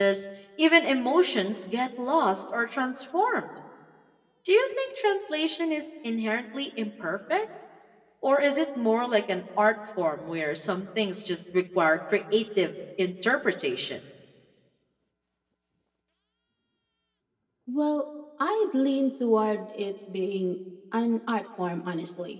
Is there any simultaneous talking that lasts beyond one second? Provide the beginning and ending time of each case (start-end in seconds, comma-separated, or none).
none